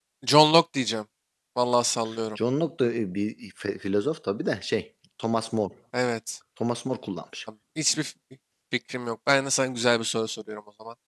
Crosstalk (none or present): none